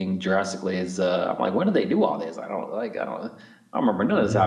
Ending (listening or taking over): listening